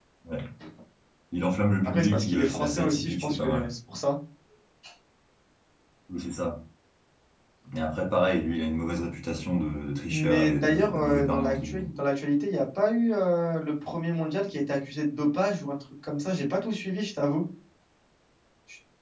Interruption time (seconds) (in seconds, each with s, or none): 1.8 s